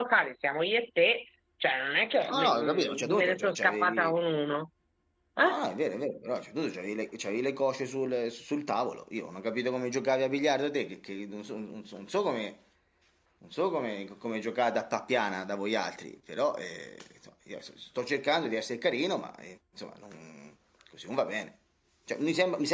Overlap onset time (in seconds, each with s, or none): 2.3 s